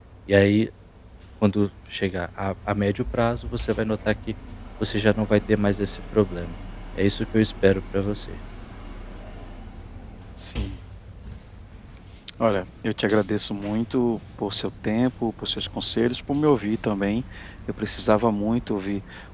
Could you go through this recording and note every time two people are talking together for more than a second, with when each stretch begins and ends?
none

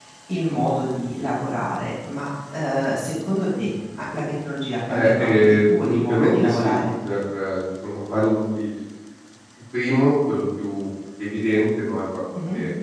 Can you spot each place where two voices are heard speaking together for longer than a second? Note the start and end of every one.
4.9-6.8

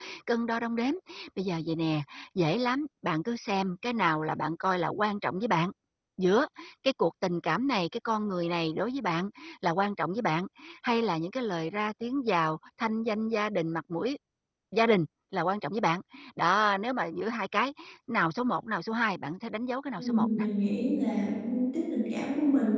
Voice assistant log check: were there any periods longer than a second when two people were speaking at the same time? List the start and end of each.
none

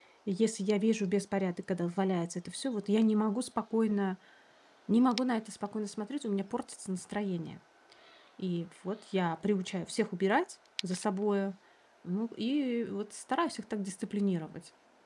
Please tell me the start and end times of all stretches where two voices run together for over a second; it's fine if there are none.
none

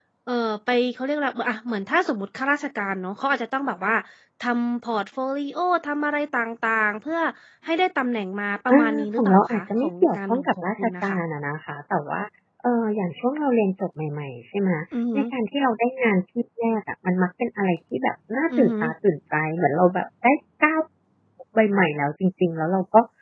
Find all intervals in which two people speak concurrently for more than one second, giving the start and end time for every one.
8.7-11.2

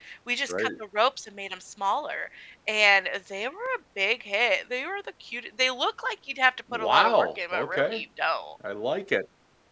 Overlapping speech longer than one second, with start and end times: 6.7-8.0

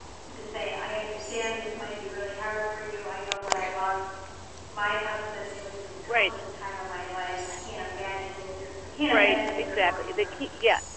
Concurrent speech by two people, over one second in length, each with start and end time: 9.1-10.4

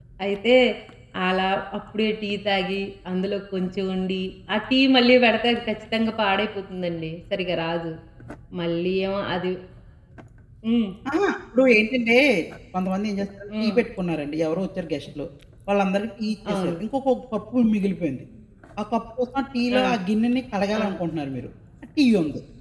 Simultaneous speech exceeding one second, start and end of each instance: none

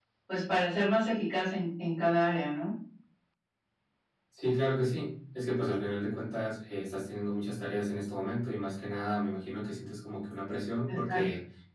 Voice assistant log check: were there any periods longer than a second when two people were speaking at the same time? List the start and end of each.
none

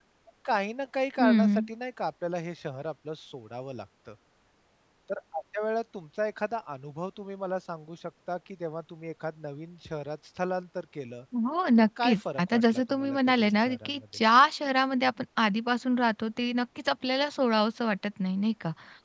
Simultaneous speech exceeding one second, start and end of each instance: 12.0-14.0

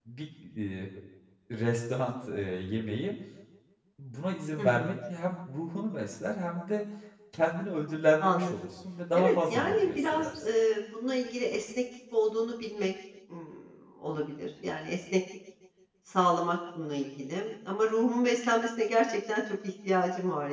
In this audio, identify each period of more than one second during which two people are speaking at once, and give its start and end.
9.1-10.4

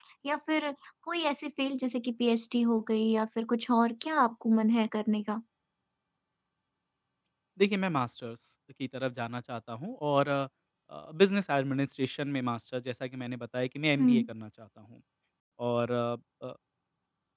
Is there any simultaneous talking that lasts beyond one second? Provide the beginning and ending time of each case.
none

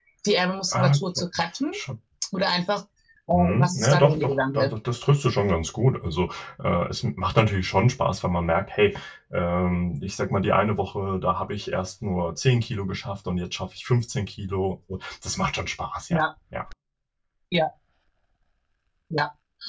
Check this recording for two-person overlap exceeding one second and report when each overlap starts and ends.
3.3-4.7

